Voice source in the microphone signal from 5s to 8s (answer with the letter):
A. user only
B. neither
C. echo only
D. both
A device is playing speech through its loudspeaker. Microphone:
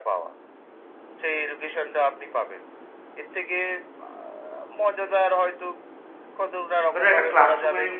D